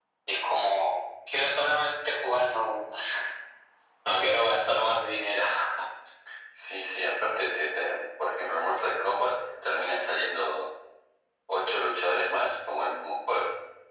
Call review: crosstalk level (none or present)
none